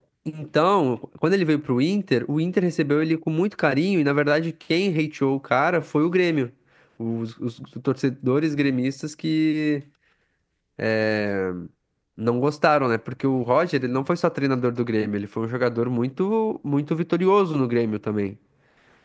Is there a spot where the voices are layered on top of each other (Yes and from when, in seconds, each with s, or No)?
No